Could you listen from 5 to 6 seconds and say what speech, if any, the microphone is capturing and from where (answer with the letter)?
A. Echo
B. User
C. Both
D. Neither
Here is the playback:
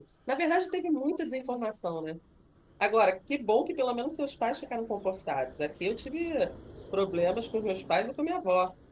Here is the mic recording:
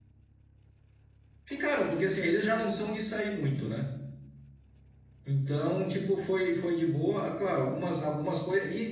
B